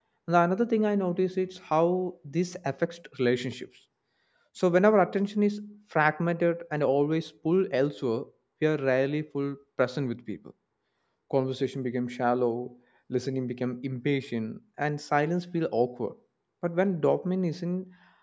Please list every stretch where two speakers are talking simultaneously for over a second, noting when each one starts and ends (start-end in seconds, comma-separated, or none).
none